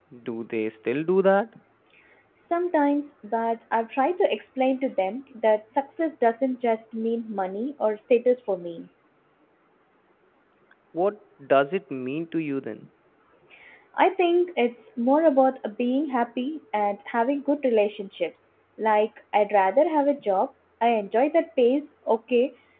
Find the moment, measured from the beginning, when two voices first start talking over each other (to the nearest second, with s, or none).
none